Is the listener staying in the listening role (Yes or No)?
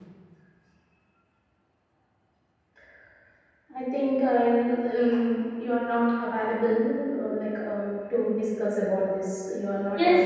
No